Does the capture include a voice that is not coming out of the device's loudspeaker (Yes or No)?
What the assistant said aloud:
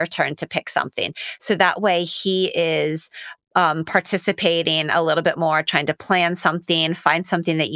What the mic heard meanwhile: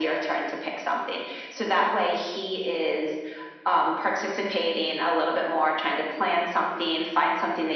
No